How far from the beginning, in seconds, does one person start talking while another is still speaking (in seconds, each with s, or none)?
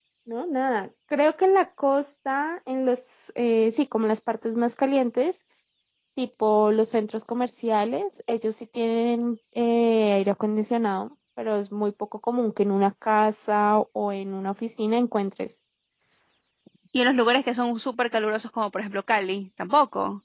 none